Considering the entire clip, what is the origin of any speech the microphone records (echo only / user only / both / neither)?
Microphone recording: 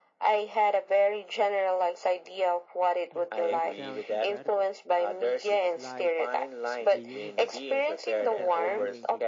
both